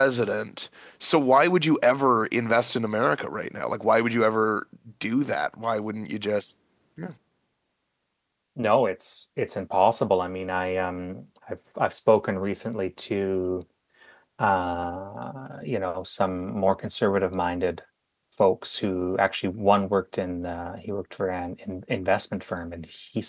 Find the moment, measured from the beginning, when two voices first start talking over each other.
none

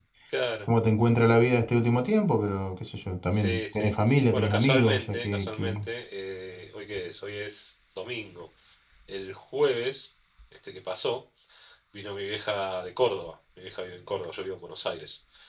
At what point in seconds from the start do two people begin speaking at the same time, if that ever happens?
3.3 s

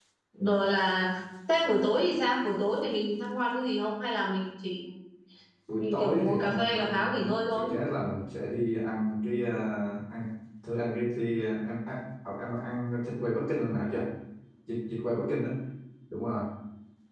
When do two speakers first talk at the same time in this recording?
5.8 s

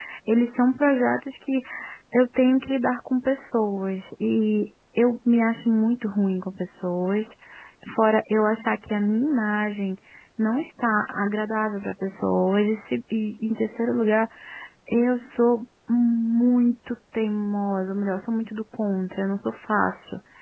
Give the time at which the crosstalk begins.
none

